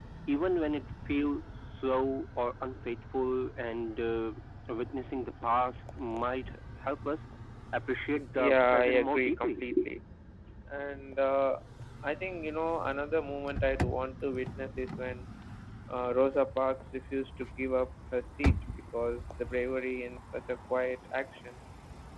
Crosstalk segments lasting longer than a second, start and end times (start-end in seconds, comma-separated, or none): 8.3-9.6